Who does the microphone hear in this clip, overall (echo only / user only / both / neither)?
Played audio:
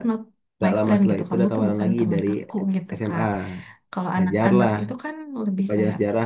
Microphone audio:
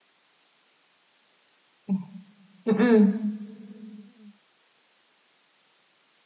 user only